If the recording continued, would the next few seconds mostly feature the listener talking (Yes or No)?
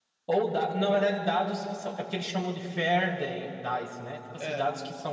No